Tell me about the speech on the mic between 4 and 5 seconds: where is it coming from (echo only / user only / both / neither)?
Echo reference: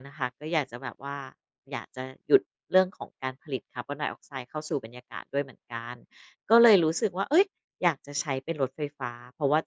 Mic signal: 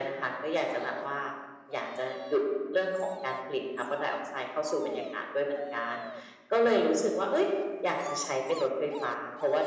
echo only